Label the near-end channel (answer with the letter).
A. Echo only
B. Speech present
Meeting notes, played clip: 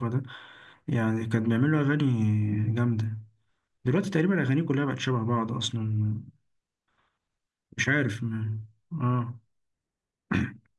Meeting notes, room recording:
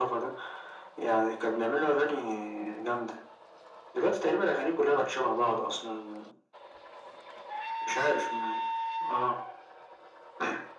A